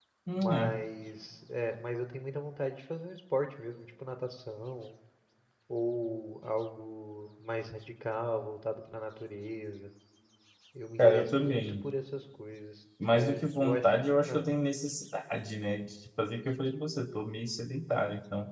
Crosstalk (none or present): present